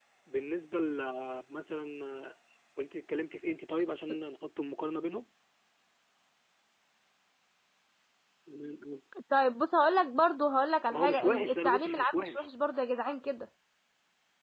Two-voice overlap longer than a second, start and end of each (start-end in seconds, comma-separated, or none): 10.9-12.5